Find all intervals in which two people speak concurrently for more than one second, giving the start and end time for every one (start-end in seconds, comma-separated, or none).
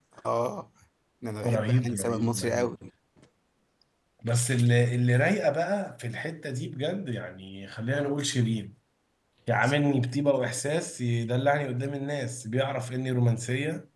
1.4-2.7